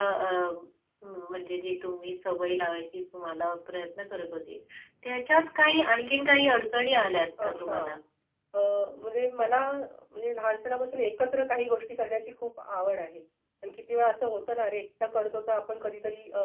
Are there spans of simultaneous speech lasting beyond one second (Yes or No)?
No